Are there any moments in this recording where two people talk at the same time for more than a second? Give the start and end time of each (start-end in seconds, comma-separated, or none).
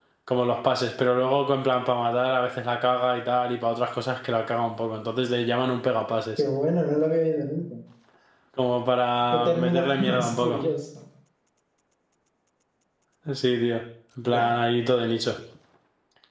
9.3-10.6